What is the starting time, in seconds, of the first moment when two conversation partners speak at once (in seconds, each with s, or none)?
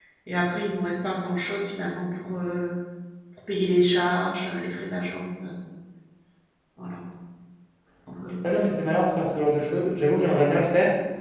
none